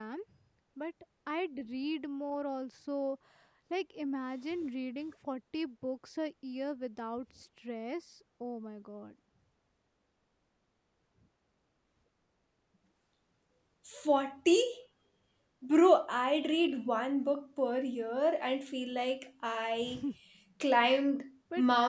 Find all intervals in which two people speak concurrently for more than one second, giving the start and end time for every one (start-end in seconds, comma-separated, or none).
none